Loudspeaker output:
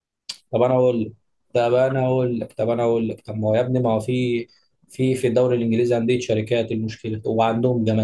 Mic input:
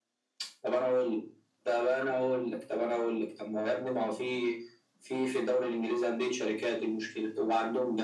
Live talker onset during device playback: none

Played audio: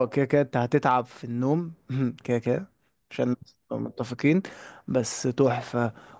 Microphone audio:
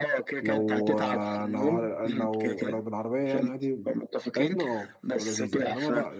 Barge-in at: 0.4 s

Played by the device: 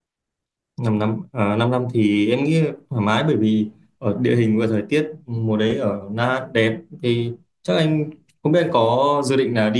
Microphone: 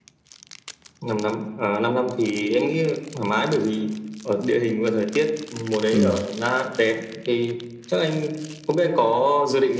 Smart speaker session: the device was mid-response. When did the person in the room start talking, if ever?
5.9 s

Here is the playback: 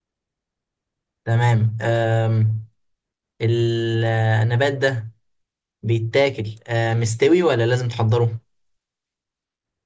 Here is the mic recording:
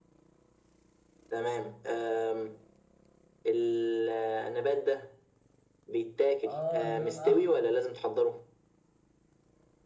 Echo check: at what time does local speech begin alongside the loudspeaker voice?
6.5 s

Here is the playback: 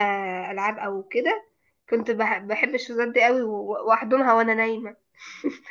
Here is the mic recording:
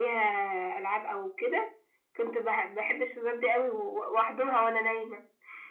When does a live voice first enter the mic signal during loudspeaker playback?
none

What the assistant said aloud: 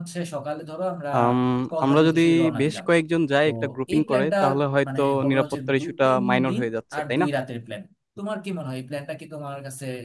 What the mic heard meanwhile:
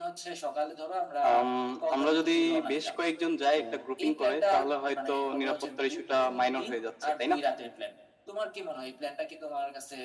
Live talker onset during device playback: none

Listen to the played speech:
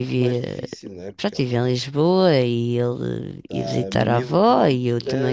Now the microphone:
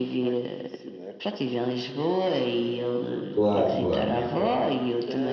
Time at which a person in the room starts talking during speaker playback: 3.3 s

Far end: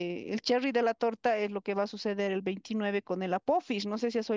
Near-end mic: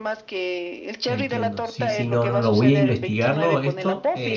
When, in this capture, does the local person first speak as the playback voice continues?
1.1 s

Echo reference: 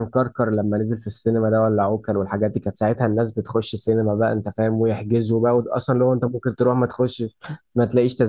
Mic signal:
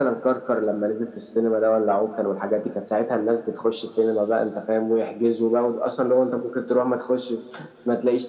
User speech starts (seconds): none

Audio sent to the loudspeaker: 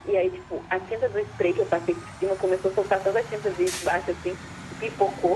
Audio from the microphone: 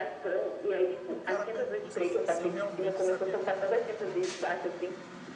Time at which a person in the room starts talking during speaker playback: 1.1 s

